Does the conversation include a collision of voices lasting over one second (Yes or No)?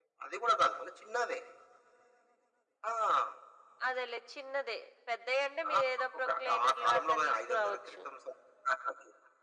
Yes